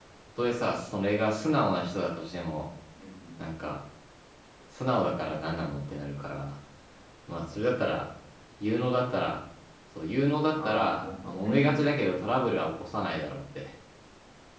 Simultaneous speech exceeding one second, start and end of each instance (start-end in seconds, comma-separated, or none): 10.6-11.8